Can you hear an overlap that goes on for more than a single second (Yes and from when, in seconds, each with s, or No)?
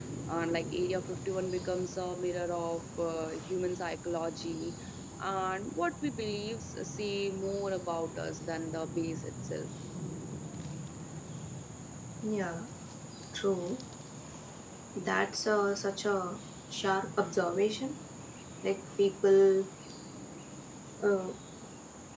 No